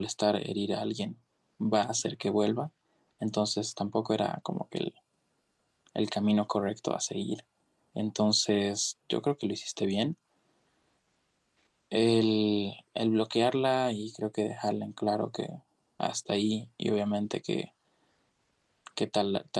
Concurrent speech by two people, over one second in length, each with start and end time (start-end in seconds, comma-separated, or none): none